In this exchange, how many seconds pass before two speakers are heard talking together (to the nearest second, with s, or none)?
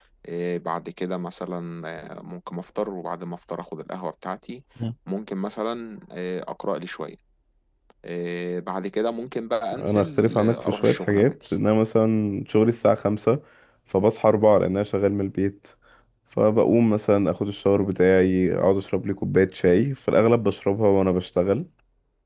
10 s